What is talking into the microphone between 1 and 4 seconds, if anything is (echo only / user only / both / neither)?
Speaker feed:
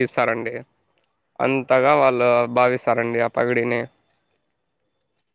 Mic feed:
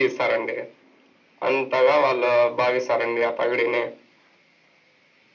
echo only